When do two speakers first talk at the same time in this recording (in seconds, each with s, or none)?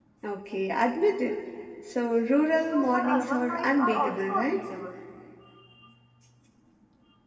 2.7 s